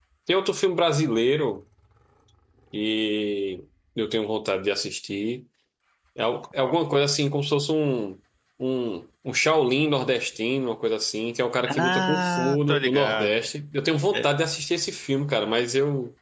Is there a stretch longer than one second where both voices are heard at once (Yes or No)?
Yes